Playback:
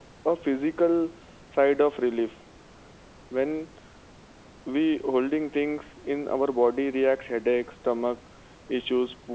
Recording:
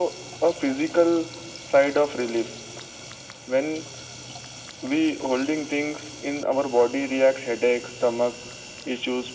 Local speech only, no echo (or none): none